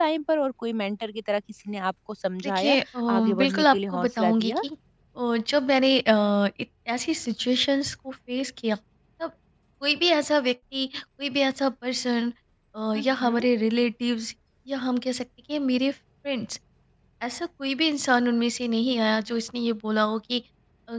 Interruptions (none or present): present